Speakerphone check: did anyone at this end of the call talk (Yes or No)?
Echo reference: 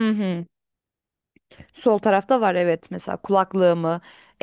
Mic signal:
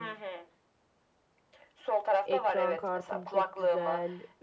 Yes